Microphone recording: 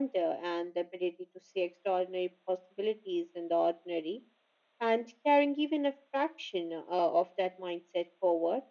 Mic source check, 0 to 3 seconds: echo only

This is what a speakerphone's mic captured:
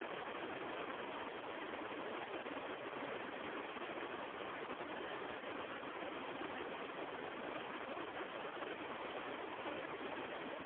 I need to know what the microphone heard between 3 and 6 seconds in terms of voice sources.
neither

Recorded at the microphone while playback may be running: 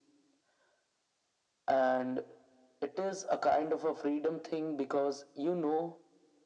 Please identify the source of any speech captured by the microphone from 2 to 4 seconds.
echo only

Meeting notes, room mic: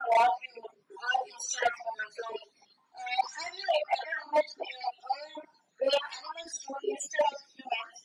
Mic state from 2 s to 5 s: echo only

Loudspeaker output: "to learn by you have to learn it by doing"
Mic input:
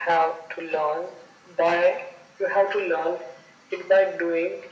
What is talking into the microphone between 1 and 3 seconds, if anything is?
echo only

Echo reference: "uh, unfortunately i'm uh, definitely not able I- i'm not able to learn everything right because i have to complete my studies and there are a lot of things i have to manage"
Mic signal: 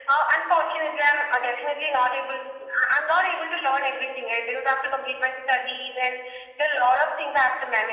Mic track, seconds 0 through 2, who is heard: echo only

